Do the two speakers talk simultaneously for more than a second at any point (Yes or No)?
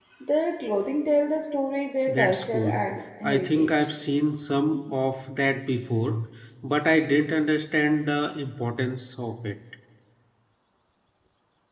Yes